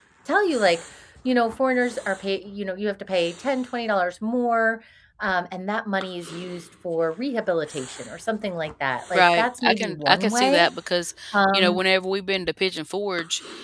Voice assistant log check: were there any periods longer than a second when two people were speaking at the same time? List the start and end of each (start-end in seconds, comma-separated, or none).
9.1-10.7